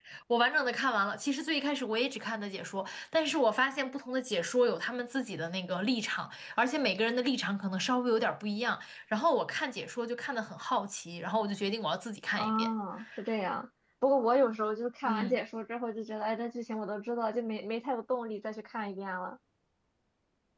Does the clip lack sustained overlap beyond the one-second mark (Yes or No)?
Yes